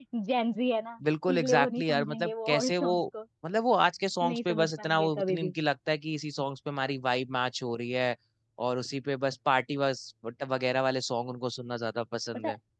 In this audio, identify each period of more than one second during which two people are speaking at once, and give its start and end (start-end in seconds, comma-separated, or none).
1.3-2.9, 4.3-5.5